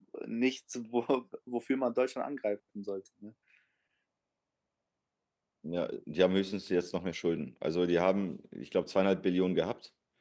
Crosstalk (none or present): none